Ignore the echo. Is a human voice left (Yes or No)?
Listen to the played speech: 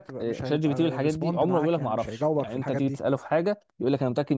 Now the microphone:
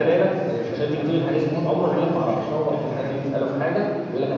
No